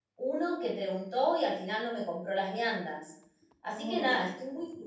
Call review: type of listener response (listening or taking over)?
listening